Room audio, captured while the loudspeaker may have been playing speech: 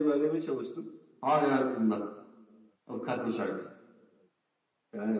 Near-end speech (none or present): none